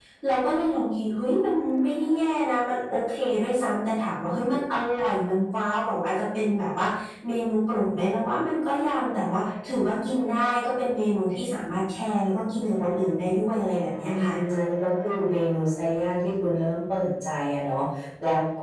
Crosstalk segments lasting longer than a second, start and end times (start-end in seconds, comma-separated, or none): none